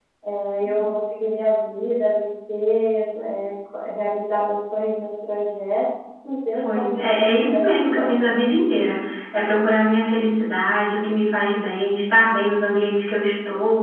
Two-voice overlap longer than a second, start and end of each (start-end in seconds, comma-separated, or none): 6.6-8.4